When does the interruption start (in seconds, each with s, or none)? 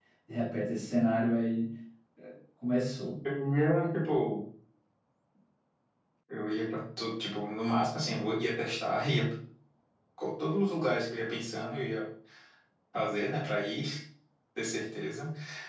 none